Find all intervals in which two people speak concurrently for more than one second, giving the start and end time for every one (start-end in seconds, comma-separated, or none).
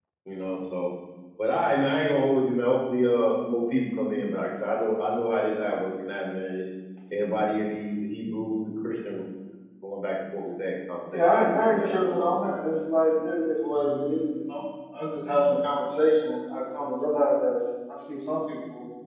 11.1-12.7